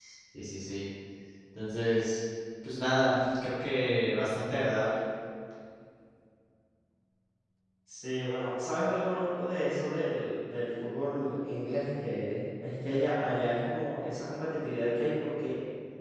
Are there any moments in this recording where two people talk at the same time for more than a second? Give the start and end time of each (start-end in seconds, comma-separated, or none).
none